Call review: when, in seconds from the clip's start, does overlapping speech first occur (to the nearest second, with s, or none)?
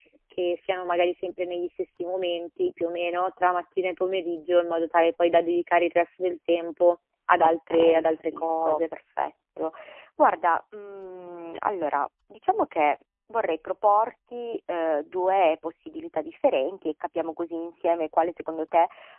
7 s